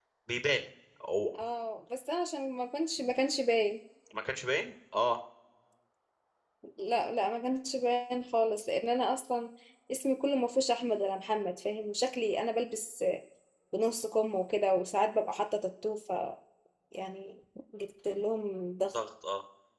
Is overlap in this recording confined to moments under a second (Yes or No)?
Yes